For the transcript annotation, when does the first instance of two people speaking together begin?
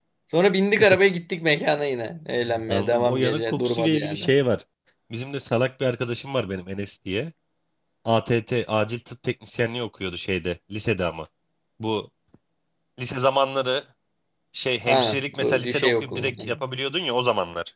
2.7 s

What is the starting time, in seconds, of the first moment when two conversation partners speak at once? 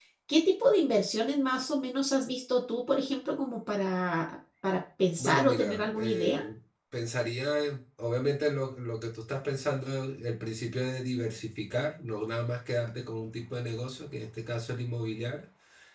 5.2 s

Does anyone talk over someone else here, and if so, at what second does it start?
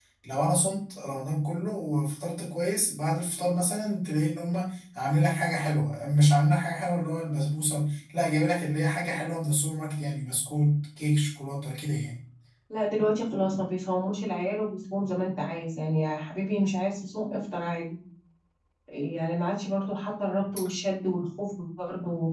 none

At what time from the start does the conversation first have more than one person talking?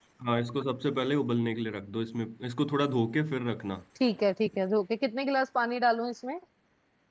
none

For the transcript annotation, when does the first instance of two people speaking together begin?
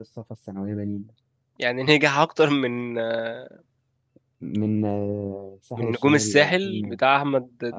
5.8 s

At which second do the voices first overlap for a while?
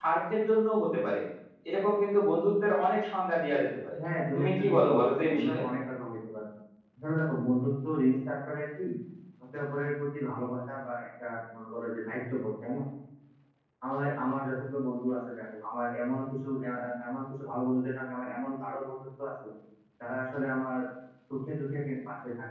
4.4 s

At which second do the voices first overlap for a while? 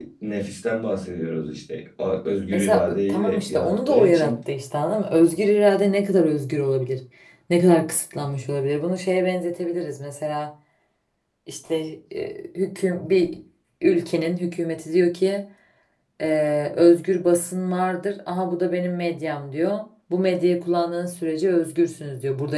2.5 s

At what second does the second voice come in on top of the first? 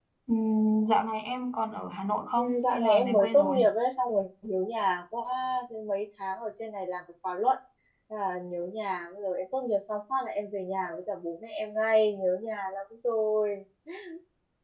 2.4 s

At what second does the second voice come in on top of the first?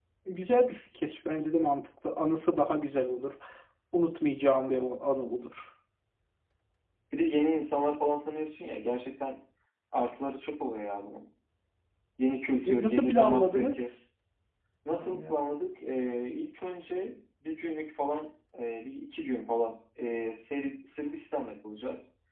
12.6 s

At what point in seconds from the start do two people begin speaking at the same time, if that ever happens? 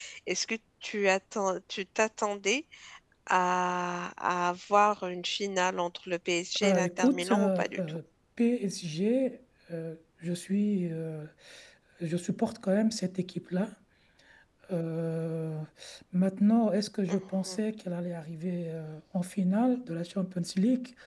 6.6 s

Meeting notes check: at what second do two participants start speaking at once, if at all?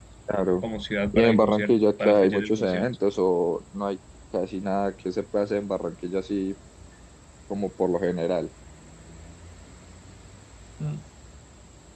1.1 s

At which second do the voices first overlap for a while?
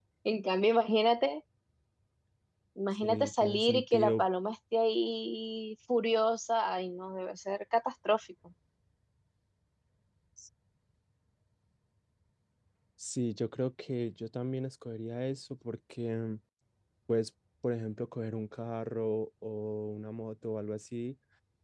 3.0 s

